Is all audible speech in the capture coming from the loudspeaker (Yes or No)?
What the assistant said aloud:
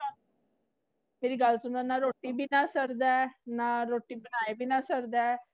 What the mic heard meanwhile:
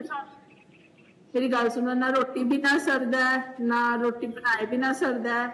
Yes